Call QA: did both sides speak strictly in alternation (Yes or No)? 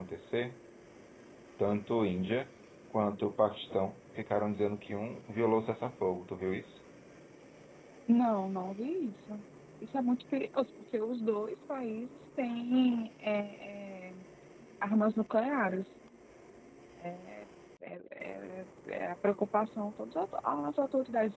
Yes